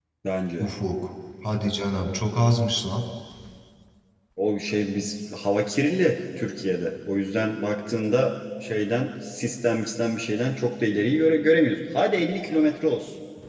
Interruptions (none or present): none